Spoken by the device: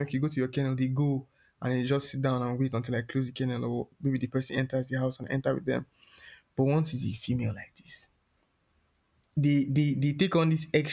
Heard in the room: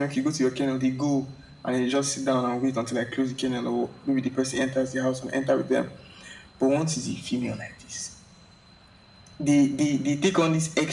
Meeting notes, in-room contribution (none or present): none